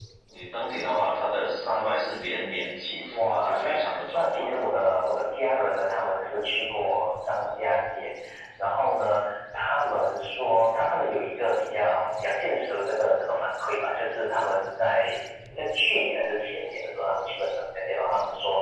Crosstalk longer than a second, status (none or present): present